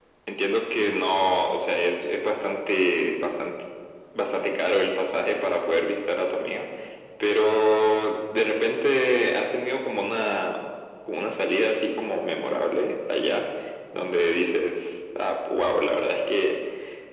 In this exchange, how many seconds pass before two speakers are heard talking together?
none

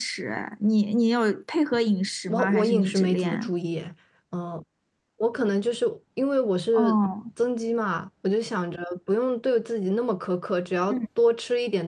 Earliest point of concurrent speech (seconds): 2.3 s

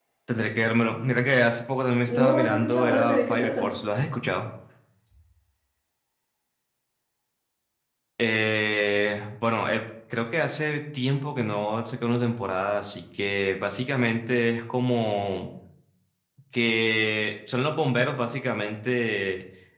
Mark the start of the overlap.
2.1 s

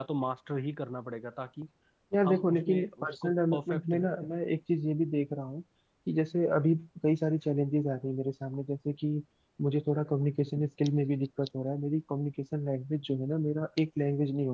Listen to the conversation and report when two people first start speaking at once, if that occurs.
2.3 s

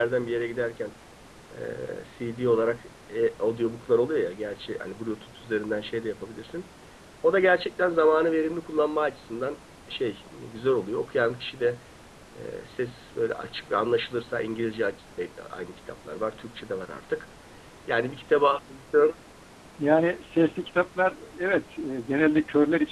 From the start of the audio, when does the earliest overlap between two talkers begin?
none

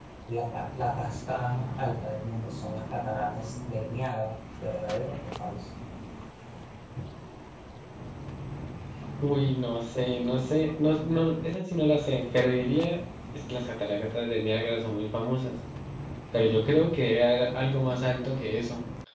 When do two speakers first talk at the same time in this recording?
none

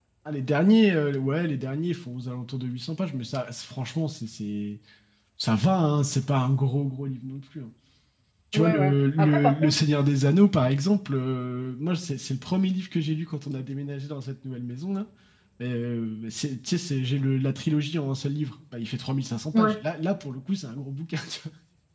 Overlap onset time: 8.5 s

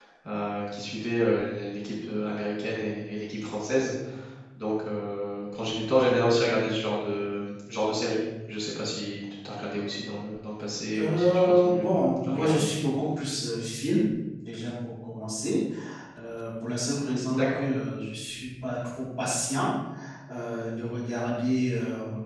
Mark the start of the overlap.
11.0 s

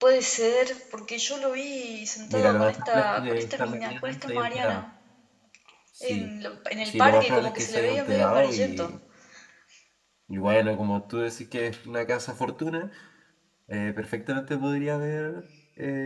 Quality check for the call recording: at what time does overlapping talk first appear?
2.3 s

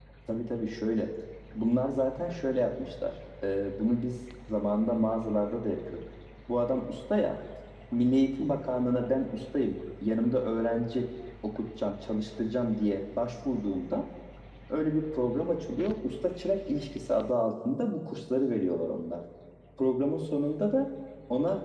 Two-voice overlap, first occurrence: none

